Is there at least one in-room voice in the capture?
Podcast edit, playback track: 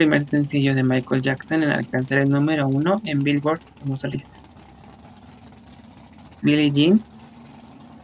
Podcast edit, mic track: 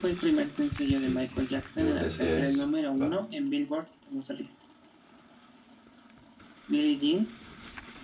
Yes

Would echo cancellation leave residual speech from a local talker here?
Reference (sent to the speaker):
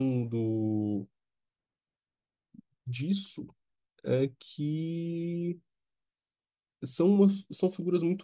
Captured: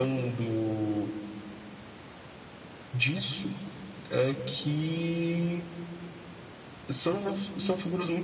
No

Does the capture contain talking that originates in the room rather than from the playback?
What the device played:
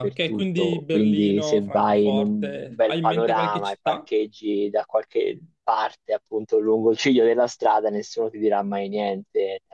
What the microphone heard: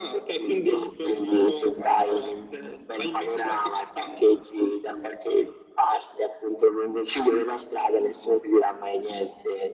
No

